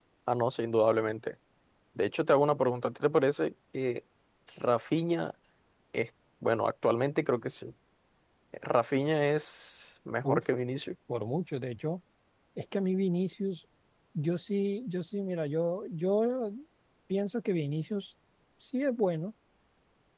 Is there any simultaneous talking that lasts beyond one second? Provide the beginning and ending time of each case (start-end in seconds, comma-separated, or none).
none